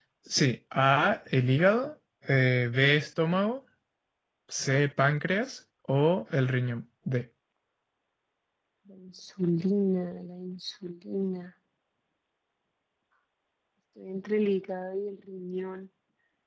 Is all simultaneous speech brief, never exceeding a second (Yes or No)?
Yes